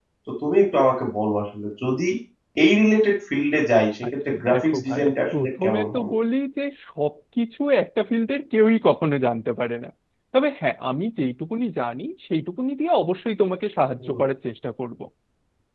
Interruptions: present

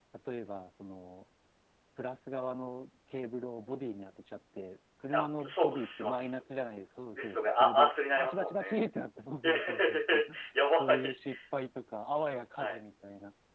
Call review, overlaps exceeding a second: present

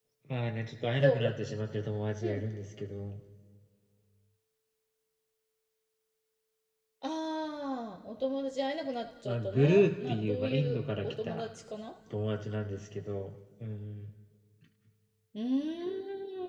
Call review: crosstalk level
present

